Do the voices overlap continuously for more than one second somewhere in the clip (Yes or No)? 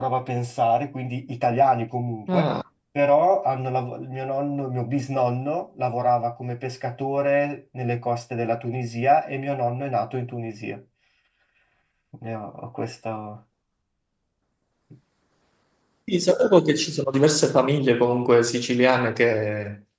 No